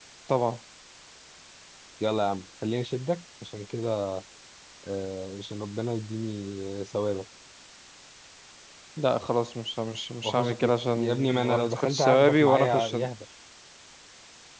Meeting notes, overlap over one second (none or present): present